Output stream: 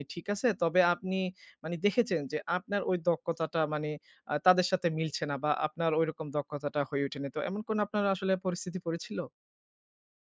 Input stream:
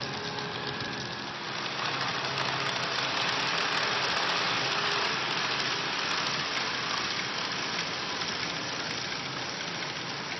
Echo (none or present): none